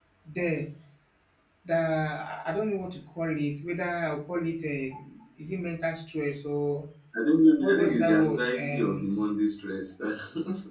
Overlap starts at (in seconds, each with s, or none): 7.6 s